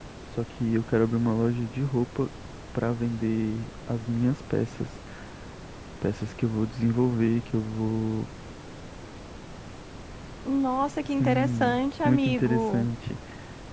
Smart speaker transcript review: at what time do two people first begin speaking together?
11.2 s

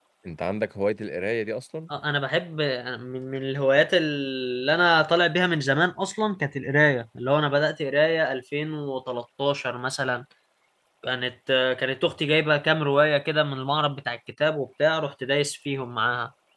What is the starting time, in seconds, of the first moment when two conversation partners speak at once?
none

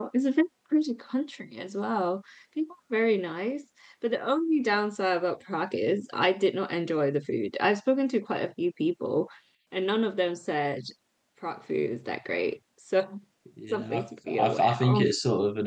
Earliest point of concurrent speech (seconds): 13.7 s

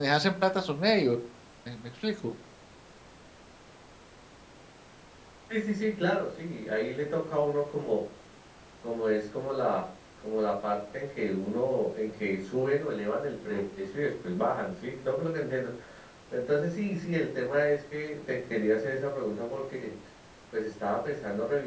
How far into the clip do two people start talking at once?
none

